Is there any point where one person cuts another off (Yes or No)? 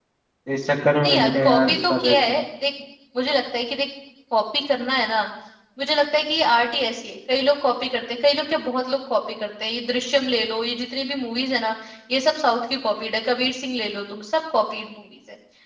Yes